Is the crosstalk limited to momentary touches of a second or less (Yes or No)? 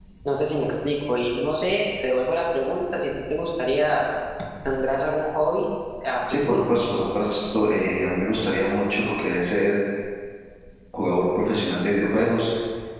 Yes